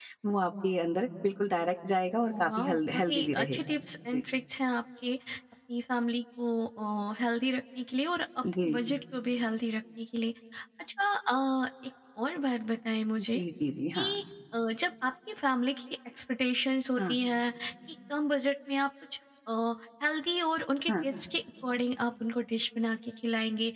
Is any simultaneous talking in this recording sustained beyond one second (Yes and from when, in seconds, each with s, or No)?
Yes, from 2.2 s